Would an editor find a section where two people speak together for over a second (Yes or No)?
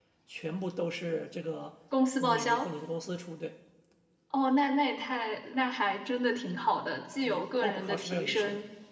Yes